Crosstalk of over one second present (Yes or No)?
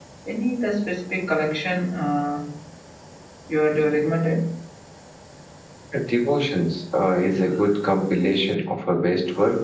No